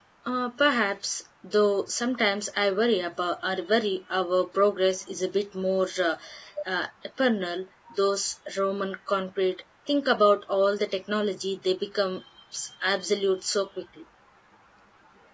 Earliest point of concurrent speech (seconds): none

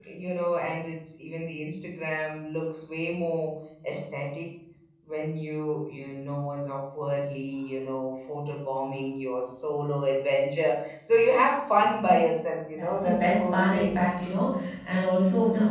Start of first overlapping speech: 13 s

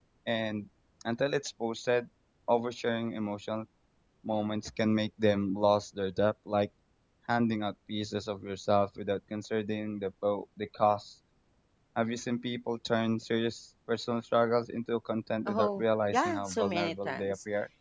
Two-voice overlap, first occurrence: 15 s

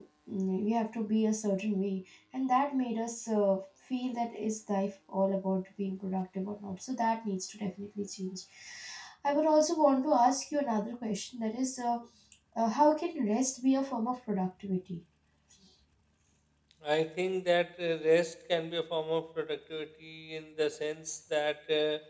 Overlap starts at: none

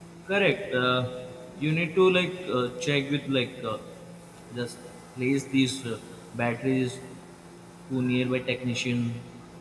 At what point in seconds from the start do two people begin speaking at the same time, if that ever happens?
none

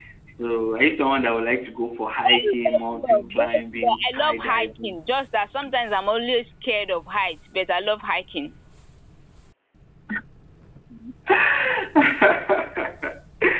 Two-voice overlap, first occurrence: 2 s

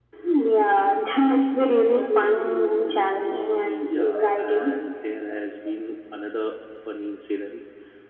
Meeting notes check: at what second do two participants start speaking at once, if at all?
3 s

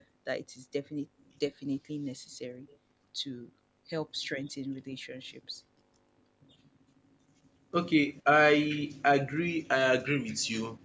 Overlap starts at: none

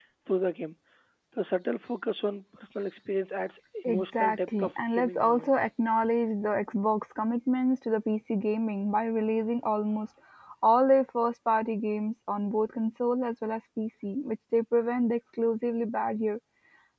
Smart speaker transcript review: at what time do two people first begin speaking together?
4 s

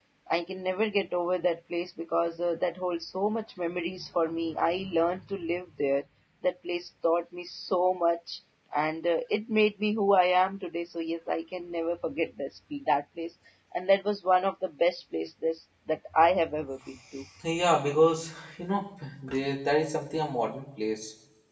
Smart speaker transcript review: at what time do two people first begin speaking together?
none

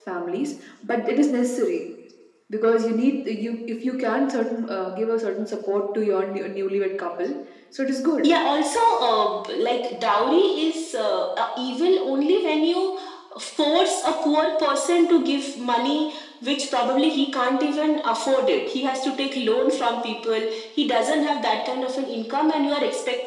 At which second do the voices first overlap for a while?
none

